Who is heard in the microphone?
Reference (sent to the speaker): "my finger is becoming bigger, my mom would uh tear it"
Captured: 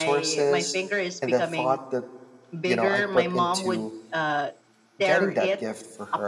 both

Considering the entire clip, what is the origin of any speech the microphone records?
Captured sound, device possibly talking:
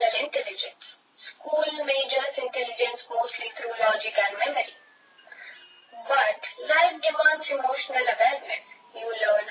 echo only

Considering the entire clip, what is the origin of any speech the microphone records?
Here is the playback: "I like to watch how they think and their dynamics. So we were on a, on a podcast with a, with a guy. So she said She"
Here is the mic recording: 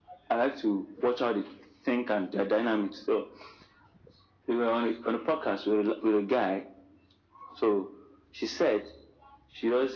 echo only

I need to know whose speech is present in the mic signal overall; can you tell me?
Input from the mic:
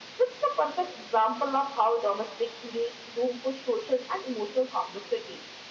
echo only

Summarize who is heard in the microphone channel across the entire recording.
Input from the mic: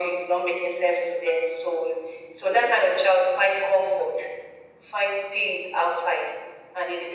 echo only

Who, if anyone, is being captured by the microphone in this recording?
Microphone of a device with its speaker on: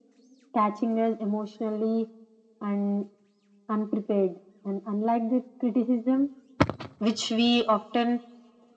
echo only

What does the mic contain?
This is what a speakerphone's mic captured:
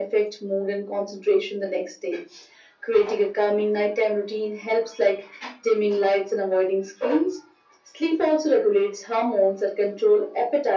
echo only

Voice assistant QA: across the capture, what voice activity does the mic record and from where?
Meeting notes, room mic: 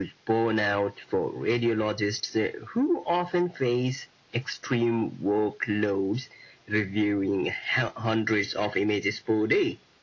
echo only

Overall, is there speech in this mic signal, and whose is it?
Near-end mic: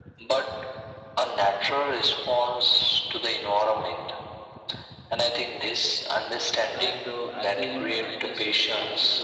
both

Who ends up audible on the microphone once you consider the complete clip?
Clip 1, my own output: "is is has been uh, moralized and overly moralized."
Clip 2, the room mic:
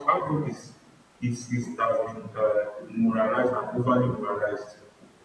echo only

